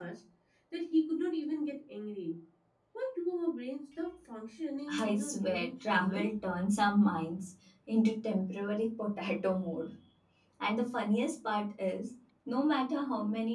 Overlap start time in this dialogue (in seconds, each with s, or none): 4.9 s